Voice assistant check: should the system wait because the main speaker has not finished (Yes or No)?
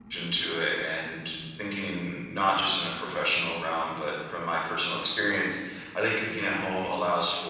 Yes